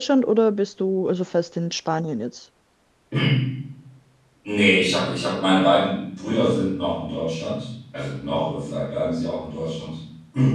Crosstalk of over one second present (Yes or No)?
No